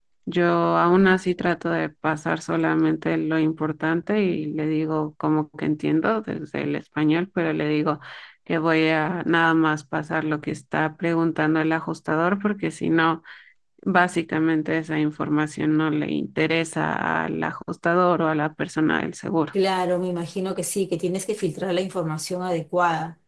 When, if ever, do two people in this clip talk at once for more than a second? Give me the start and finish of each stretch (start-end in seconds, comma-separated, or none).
none